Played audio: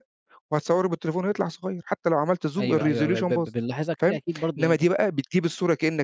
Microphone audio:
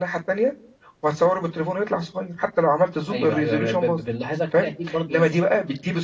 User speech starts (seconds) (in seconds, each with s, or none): none